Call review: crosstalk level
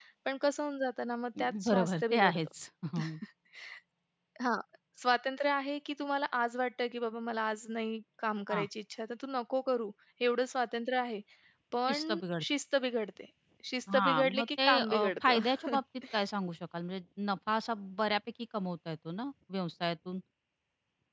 present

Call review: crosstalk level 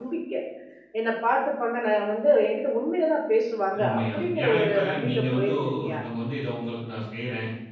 present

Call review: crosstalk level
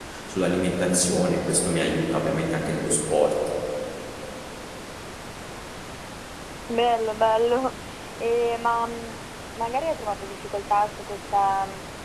none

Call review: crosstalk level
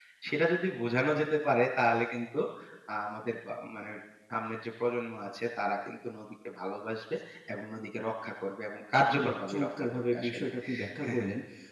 present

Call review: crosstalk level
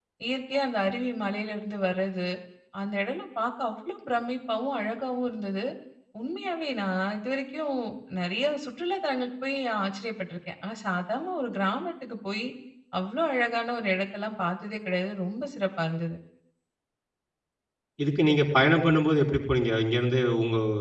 none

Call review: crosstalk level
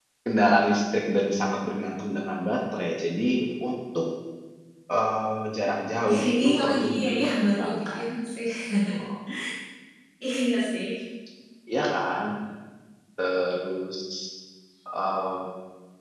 present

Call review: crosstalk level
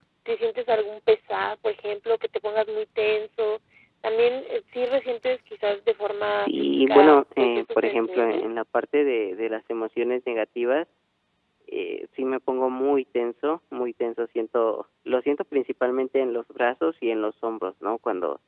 present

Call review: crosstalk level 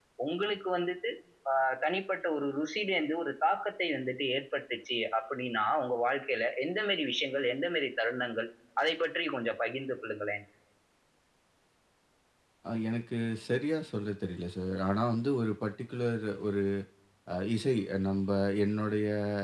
none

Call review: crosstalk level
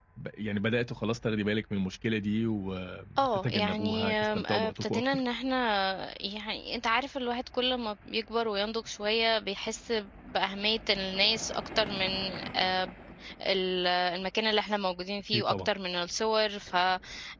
present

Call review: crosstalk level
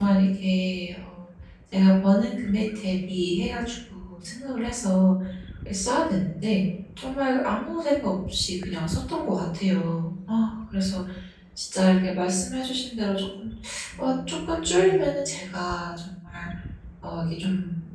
present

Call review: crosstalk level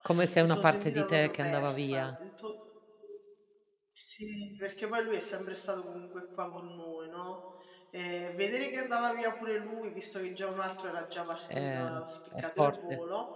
present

